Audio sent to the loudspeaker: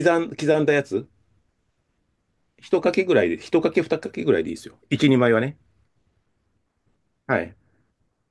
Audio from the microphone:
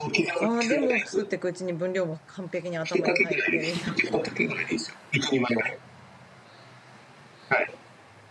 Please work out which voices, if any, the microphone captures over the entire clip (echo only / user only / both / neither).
both